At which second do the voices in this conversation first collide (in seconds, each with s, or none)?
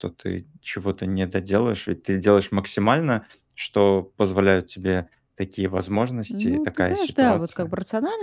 6.3 s